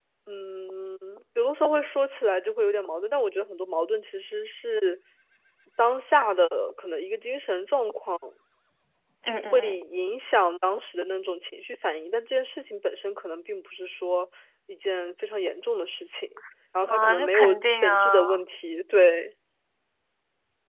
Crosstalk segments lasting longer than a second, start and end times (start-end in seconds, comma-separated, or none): 16.9-18.2